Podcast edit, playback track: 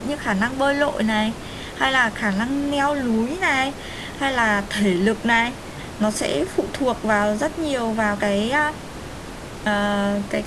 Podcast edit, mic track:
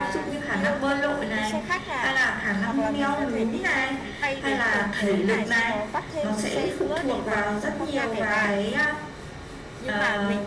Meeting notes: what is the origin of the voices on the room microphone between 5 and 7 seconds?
both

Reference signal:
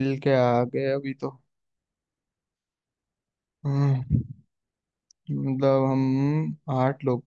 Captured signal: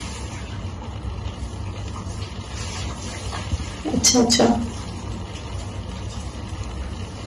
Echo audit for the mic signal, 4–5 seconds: user only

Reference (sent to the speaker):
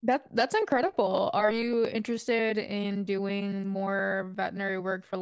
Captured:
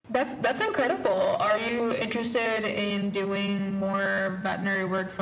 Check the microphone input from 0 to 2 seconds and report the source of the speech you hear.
echo only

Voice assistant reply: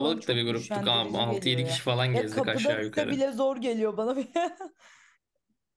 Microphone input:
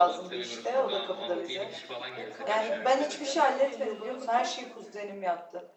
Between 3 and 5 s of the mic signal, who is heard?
both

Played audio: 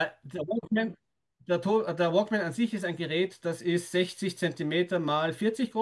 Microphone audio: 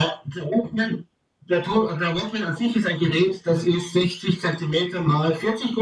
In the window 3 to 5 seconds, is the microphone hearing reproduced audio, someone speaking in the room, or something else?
echo only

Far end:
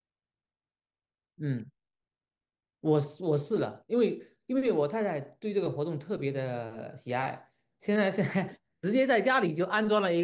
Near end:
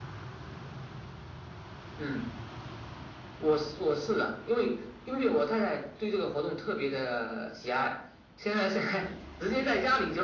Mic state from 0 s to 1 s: neither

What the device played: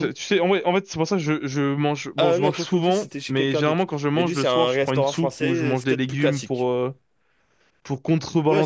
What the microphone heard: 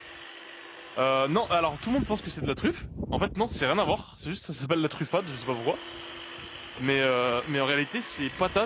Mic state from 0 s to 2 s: user only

